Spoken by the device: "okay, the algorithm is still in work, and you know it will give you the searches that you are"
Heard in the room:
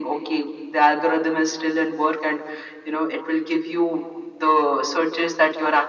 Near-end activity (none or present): none